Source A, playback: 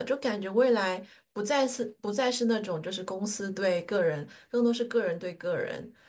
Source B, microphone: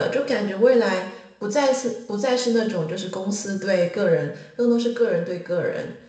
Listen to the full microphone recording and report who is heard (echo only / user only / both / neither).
echo only